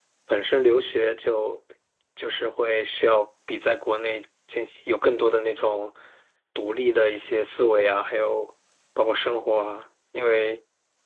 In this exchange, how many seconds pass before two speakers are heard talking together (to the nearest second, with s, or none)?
none